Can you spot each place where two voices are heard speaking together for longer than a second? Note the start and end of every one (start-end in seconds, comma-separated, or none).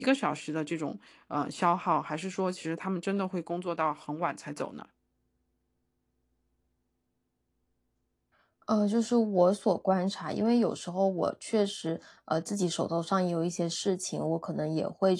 none